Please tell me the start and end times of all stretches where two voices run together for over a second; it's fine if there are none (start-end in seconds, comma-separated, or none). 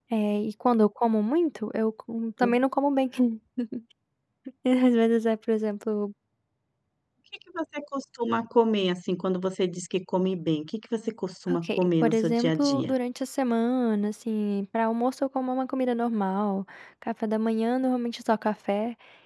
11.5-12.9